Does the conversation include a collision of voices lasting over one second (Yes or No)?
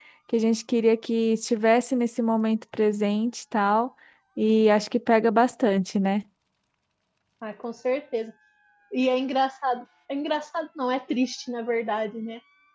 No